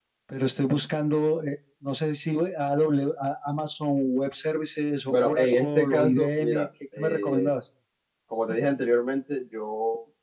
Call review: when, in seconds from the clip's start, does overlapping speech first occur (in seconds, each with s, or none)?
5.1 s